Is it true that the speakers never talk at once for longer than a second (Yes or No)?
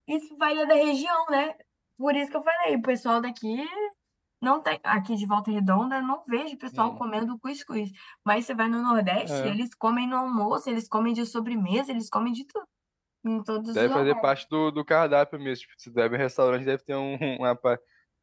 Yes